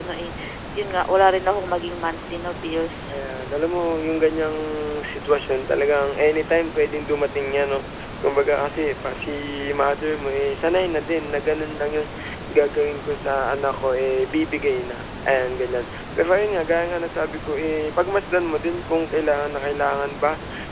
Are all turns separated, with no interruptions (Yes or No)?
Yes